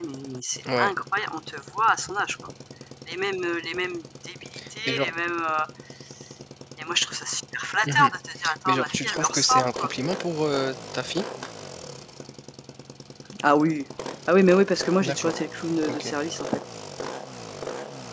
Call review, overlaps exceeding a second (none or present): present